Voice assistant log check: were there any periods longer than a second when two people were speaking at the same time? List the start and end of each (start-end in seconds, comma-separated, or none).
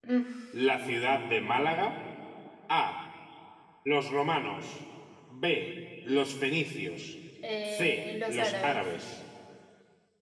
7.6-8.9